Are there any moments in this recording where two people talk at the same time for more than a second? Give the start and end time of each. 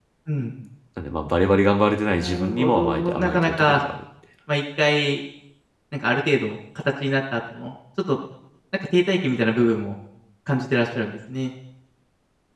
2.1-3.8

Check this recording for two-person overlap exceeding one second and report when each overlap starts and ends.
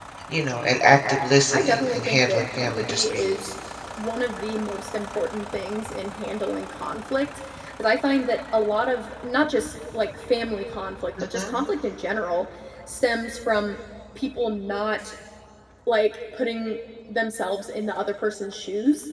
1.5-3.5

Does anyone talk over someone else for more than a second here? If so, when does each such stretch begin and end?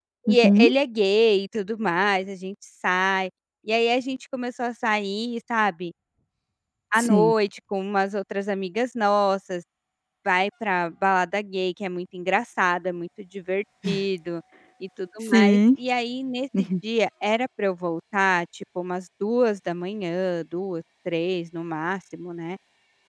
none

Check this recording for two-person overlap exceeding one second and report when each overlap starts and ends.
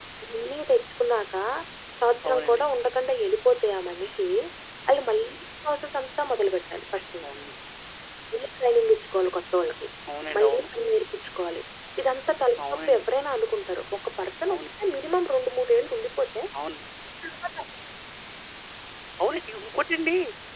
none

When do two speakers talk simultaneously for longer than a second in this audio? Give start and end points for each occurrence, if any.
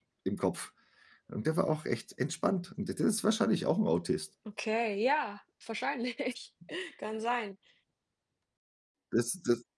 none

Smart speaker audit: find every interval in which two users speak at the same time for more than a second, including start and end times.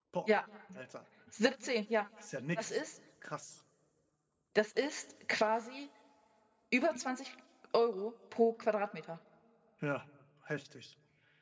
none

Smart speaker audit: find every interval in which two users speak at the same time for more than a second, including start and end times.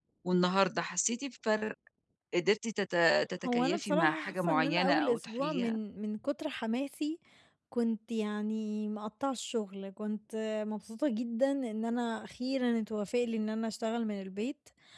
3.4-5.8

